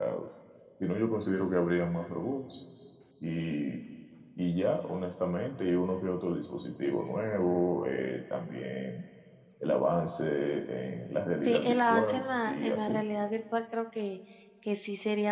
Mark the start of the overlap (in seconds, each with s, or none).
11.4 s